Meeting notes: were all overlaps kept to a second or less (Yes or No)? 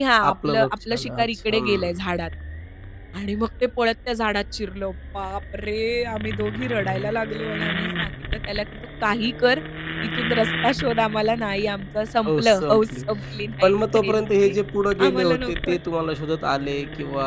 No